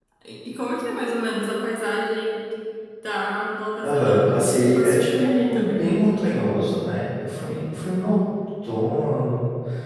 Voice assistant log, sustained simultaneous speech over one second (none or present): present